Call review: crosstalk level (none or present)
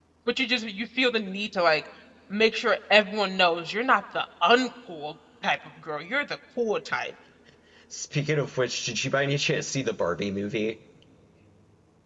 none